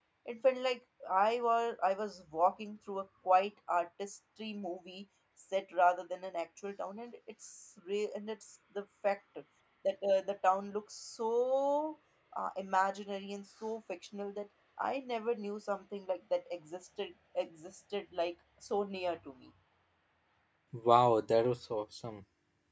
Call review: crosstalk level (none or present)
none